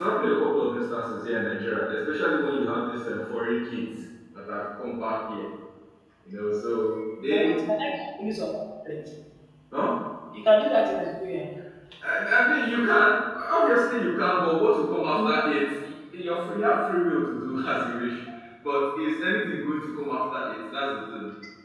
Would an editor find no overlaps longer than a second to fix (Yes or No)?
Yes